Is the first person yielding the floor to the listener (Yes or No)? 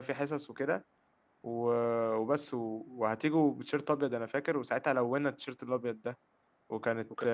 Yes